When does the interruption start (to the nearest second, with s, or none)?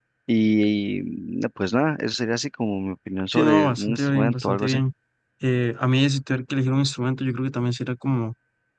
3 s